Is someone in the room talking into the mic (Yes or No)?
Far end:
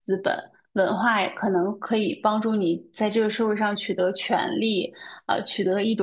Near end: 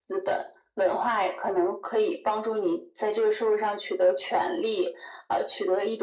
No